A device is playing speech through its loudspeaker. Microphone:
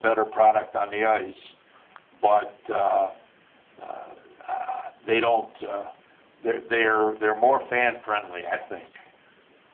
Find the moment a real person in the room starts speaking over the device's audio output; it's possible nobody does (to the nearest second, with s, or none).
none